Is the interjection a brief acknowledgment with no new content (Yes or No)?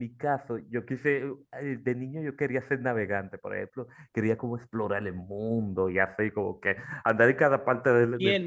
No